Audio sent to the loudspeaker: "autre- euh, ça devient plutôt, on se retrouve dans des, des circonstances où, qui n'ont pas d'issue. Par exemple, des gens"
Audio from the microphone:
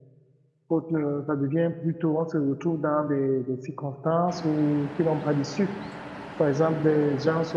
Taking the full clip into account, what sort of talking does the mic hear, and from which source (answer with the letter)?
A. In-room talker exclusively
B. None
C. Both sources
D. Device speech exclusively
D